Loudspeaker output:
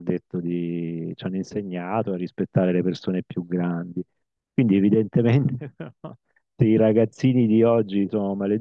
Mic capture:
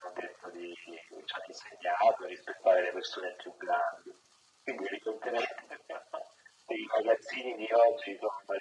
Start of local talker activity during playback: none

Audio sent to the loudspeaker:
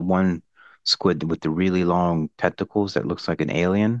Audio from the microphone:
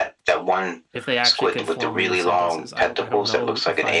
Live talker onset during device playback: 0.9 s

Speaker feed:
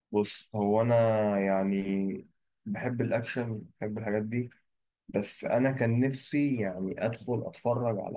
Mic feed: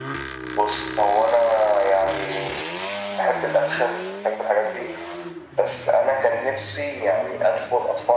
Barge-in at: none

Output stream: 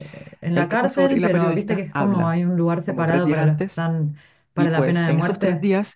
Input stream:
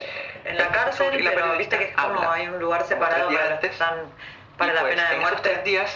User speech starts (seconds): none

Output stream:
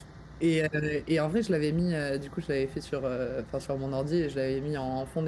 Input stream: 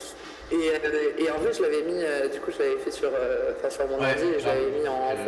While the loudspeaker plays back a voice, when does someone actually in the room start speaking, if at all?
4.0 s

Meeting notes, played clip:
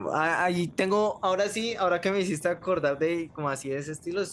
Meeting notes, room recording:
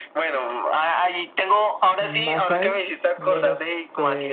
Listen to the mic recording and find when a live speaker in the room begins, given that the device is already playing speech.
2.0 s

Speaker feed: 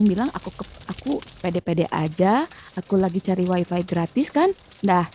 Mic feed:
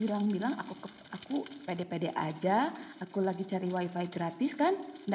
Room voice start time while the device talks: none

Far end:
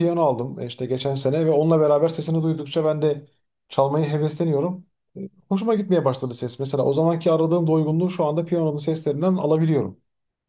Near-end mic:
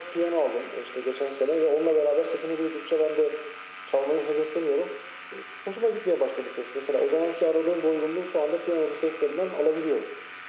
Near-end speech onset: none

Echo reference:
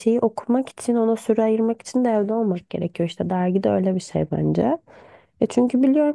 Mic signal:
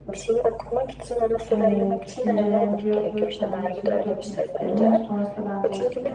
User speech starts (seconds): 1.5 s

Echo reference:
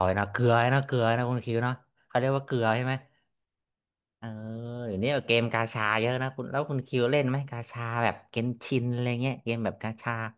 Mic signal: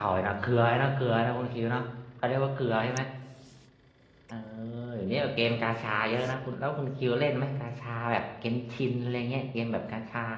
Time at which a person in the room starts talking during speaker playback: none

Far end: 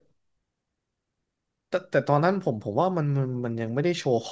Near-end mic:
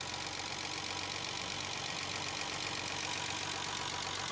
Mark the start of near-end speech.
none

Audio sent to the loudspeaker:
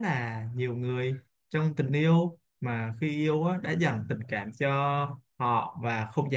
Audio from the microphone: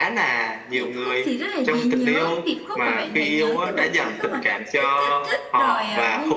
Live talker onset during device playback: 0.7 s

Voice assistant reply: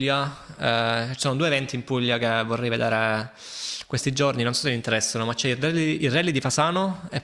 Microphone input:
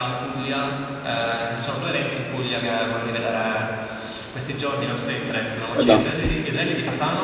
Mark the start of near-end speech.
5.7 s

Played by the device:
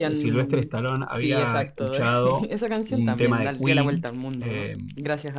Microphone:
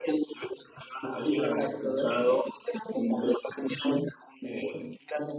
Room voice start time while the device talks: none

